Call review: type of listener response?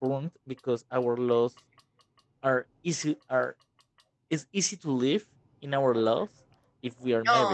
listening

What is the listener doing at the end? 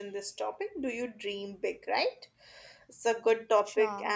listening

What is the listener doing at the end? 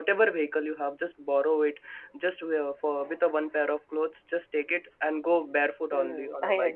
taking over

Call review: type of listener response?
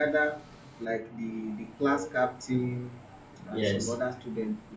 listening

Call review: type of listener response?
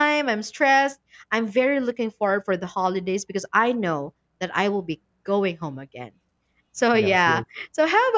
listening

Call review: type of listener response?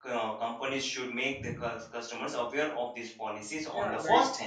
taking over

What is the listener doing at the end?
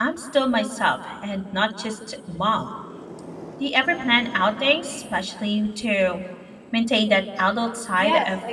taking over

